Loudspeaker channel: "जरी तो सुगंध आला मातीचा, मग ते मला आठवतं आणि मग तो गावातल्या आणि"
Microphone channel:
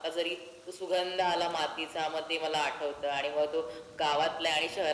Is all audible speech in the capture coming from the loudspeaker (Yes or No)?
Yes